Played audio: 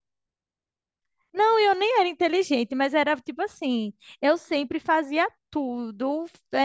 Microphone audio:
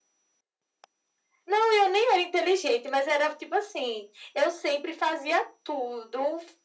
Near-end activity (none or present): none